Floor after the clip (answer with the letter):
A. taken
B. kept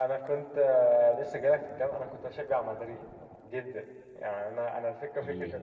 B